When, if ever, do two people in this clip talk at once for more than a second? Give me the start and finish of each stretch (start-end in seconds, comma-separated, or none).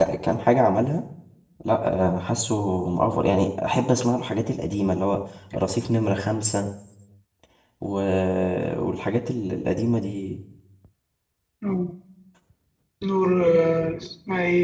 none